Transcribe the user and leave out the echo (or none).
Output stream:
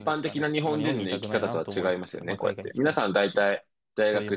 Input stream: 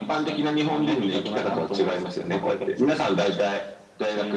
none